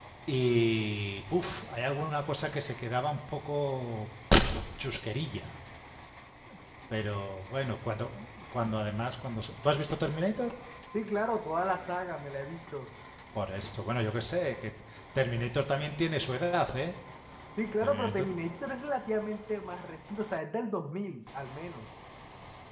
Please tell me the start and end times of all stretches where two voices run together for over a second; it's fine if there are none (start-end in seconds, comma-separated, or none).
none